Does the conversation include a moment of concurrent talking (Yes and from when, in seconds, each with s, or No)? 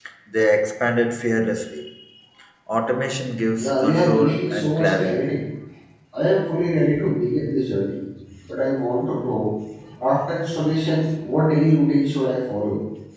Yes, from 3.6 s